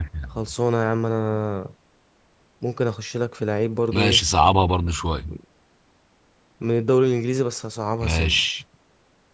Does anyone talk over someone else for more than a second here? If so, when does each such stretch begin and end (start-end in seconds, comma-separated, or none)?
none